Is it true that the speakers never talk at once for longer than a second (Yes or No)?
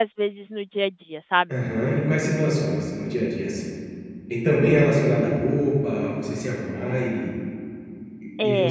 Yes